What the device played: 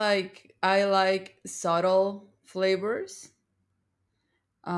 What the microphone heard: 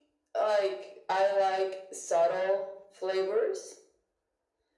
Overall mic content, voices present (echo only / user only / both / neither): echo only